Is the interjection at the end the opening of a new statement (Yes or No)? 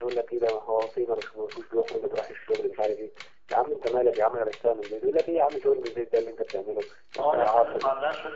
Yes